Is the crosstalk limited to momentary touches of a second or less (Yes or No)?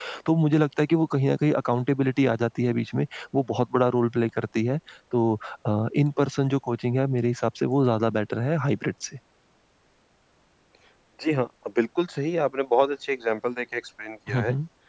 Yes